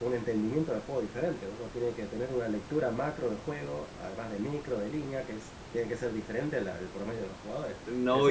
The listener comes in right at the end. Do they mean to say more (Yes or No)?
Yes